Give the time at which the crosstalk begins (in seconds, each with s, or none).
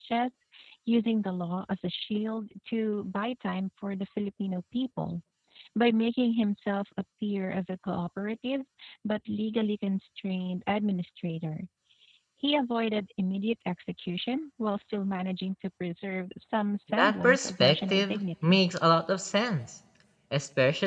16.9 s